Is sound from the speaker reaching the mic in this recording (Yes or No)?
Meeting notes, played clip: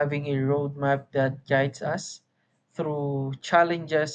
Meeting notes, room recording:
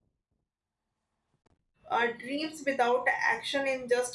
No